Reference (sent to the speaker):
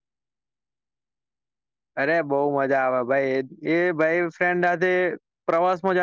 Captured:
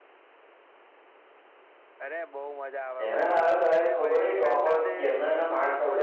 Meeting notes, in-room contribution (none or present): present